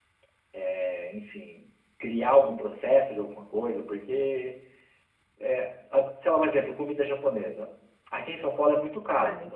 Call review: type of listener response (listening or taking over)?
listening